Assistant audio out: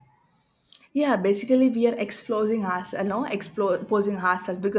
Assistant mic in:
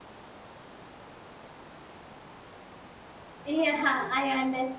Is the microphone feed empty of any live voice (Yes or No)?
No